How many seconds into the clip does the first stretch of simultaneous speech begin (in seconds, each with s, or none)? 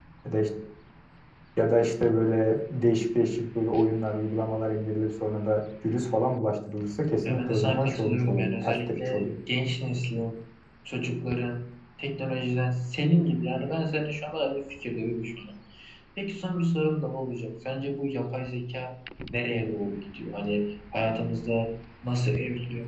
7.2 s